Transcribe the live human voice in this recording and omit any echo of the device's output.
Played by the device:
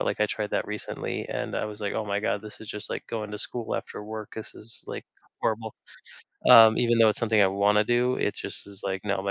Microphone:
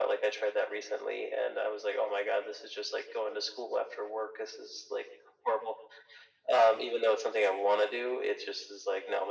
none

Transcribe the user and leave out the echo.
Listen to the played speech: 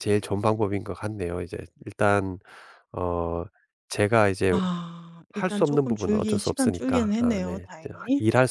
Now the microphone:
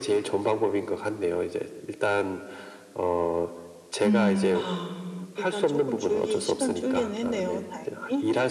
음.

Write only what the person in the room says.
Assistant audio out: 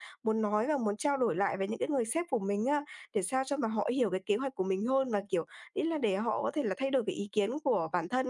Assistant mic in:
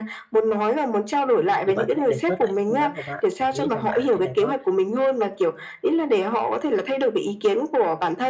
thì bạn hãy đề xuất lại cái phương án của bạn. Bạn nghĩ rằng, là à, cái này nó

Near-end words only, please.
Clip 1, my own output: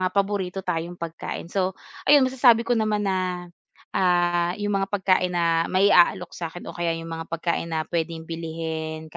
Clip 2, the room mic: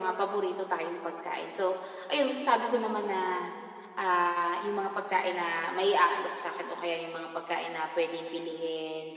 none

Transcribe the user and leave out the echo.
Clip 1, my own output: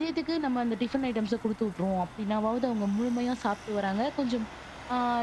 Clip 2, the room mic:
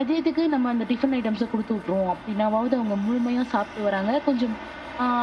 none

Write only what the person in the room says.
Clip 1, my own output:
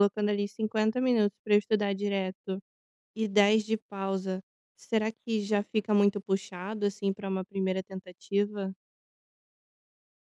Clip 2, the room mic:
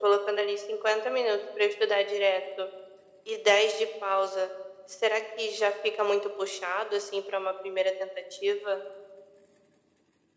none

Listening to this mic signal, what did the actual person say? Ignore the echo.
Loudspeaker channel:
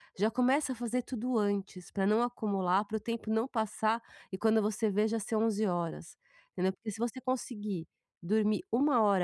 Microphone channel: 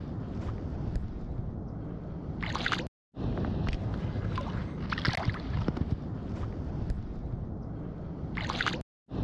none

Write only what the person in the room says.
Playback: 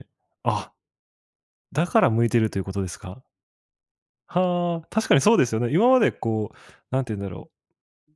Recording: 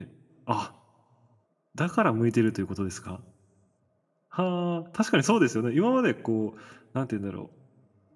none

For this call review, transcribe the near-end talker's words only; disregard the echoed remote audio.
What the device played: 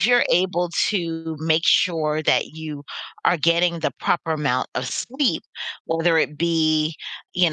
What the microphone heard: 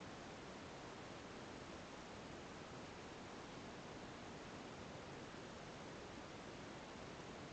none

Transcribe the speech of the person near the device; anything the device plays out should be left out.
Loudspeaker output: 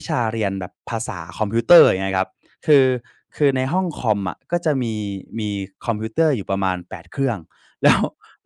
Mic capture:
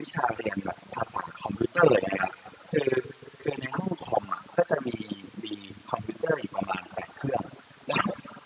none

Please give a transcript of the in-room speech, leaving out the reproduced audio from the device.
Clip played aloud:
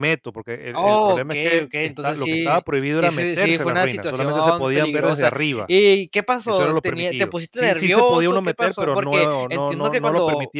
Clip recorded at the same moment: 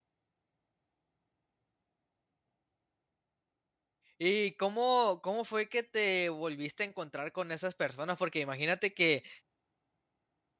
¿Y cómo cómo fue que te volviste a encontrar con esas personas? Porque imagínate que

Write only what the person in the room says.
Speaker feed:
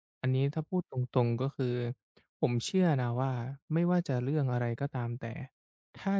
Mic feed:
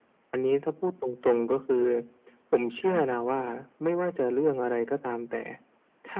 ค่ะ

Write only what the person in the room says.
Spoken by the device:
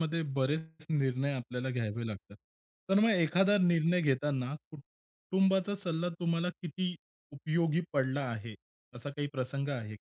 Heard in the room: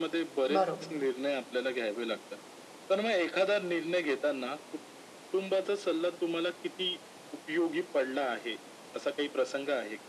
बरोबर.

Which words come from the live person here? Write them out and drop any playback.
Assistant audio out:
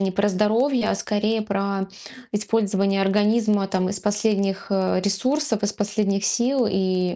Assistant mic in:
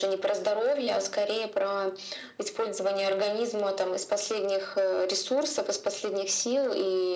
none

